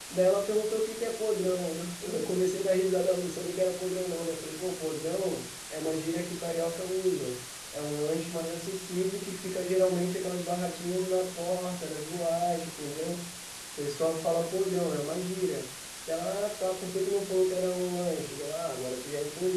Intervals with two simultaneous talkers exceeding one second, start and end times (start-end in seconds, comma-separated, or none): none